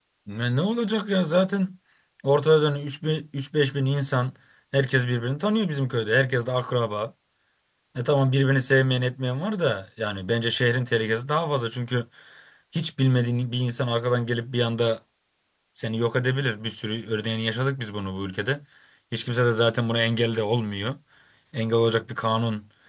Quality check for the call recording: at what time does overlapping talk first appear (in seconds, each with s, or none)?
none